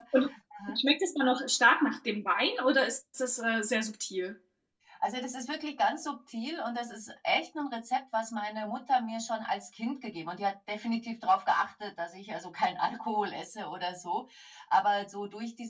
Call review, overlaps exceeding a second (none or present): none